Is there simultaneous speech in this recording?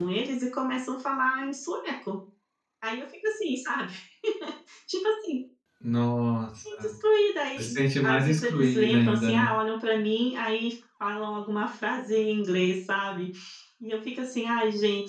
Yes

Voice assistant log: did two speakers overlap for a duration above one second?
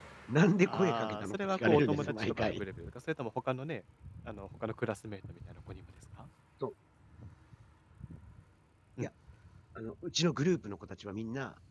Yes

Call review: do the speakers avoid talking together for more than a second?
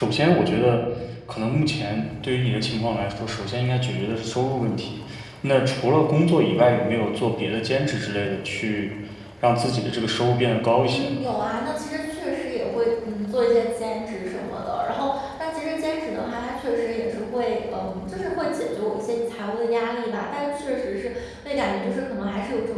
Yes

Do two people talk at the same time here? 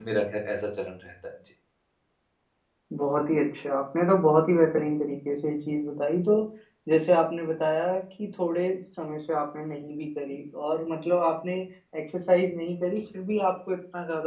No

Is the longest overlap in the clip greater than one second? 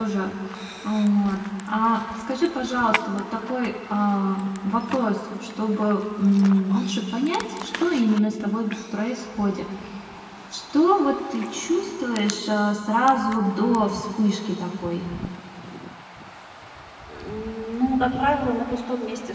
No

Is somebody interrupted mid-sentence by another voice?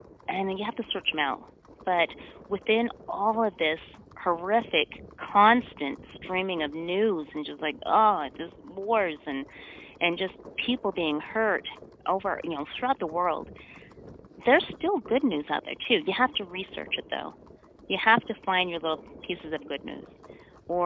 No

